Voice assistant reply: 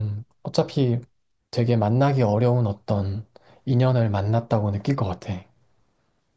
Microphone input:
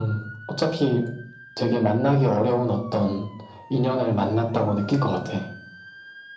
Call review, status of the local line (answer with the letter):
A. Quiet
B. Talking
A